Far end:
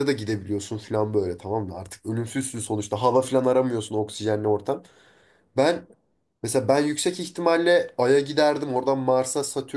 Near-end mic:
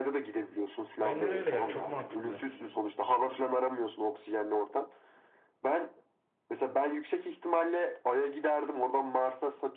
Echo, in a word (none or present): present